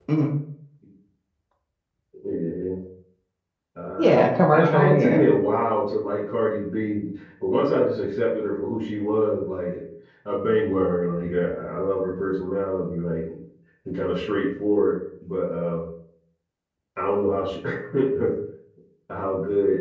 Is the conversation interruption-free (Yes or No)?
No